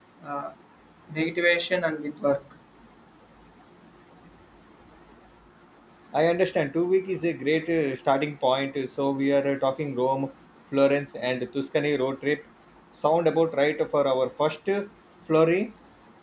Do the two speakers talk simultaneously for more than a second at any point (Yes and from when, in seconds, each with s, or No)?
No